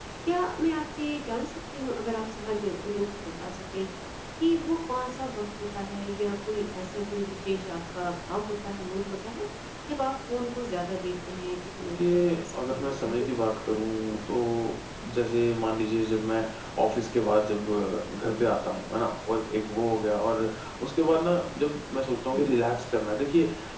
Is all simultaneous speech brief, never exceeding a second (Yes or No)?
No